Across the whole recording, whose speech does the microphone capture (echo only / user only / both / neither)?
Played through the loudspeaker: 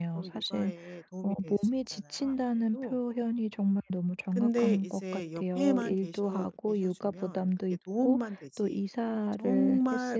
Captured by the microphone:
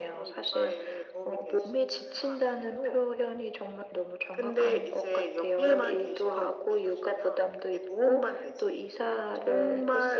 echo only